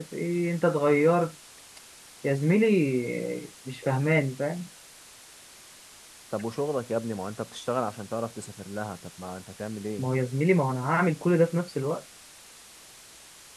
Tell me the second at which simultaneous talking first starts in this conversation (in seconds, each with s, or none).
none